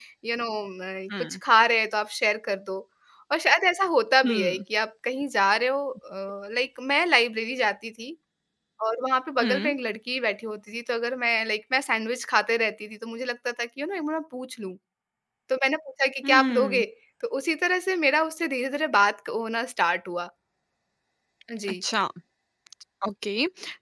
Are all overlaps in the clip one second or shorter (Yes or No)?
Yes